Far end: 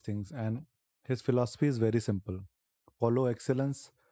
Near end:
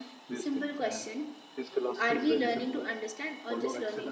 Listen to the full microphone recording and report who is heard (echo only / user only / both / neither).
both